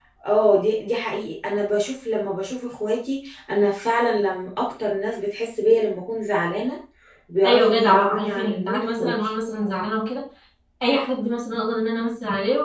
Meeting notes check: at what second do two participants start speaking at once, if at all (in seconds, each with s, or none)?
7.4 s